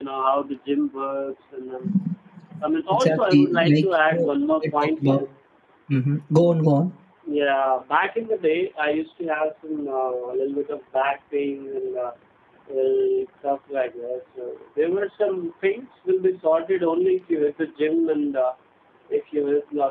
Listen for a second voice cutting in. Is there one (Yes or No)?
Yes